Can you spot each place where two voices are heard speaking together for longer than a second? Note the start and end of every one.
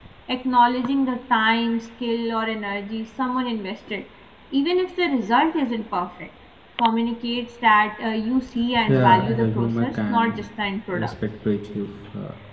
8.9-10.4

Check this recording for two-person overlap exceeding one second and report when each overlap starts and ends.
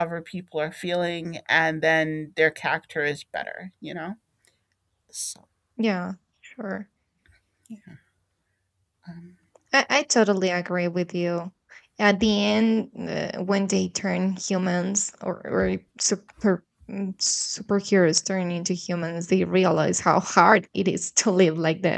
none

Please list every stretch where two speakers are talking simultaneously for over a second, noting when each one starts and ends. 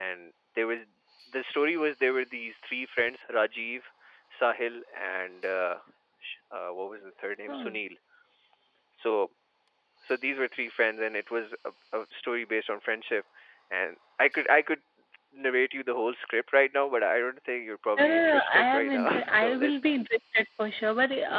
18.0-19.8

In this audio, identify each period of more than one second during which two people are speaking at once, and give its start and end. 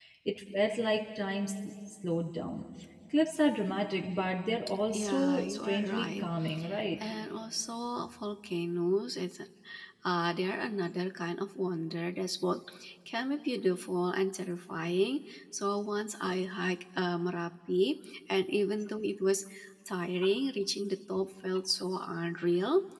4.9-6.3

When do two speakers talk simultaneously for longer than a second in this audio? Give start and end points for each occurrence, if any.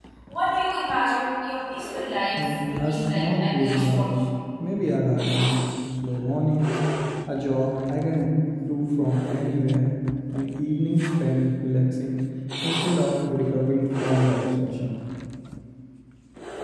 2.4-4.2

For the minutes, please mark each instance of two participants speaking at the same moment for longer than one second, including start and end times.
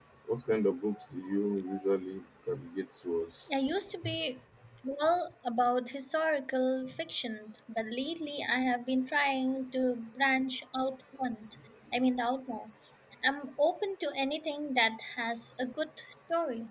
none

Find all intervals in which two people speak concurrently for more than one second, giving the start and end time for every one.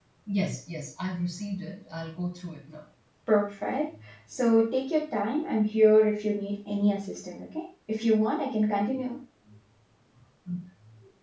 none

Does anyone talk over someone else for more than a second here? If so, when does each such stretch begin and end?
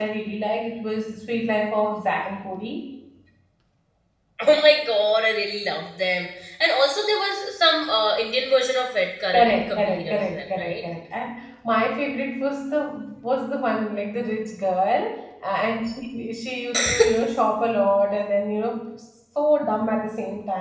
9.3-10.8

